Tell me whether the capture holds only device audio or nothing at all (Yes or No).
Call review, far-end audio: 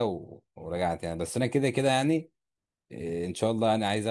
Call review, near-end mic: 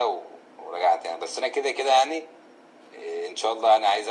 Yes